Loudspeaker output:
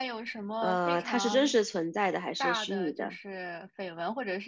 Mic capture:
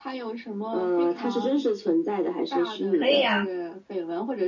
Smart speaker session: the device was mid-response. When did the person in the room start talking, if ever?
2.9 s

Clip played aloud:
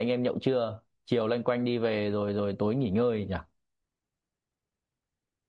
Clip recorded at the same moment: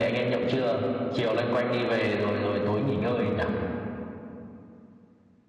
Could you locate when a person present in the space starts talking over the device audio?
none

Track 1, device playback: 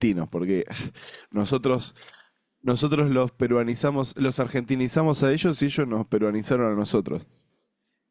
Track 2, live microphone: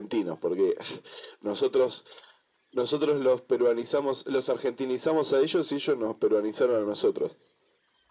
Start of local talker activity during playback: none

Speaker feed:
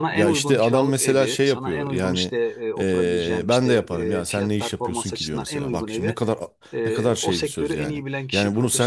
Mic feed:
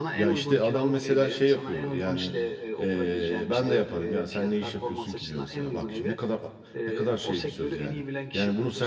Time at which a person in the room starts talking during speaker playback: none

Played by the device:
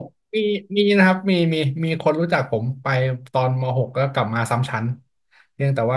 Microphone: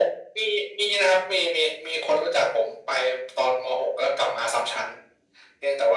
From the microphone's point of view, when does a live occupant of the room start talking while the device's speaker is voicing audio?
none

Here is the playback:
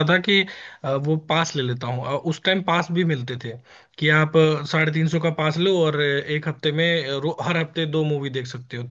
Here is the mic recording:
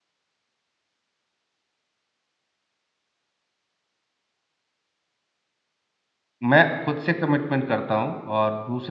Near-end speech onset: 6.5 s

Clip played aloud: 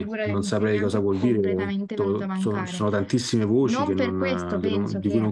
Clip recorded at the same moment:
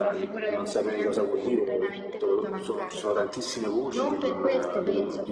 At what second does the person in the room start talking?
none

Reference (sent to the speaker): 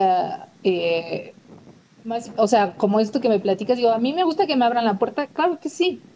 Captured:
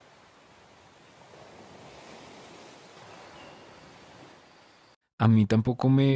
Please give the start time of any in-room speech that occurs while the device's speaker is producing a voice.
5.2 s

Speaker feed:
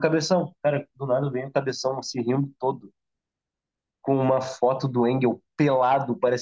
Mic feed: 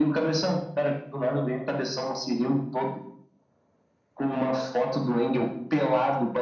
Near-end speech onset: none

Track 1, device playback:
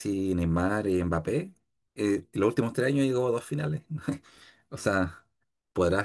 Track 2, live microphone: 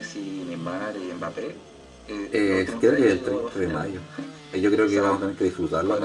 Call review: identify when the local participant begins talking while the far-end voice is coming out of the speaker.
2.3 s

